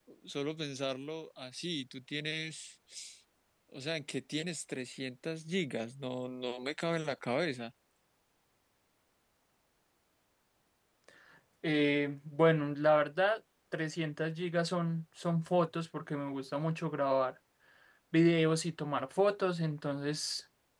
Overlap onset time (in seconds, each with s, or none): none